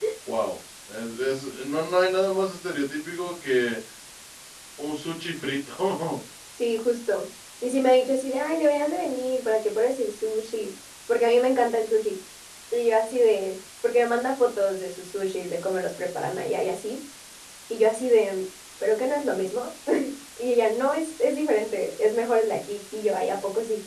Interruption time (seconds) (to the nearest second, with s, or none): none